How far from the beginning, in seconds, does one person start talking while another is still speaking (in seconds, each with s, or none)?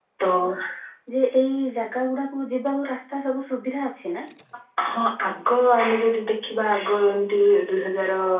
none